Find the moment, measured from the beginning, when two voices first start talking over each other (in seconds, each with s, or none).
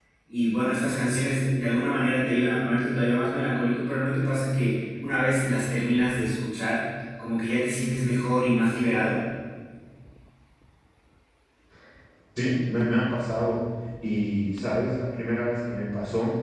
none